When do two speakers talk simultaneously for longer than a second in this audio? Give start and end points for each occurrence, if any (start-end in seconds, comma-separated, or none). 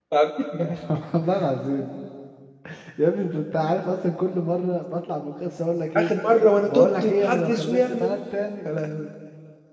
6.6-8.2